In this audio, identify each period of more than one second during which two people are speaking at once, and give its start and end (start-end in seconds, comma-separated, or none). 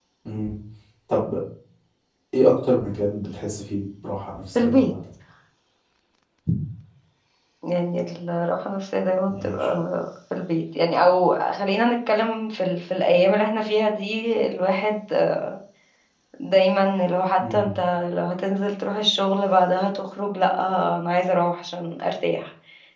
none